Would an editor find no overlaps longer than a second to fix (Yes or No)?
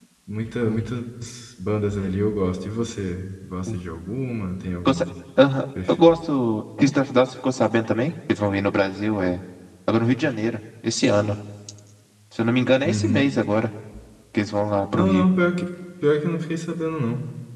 Yes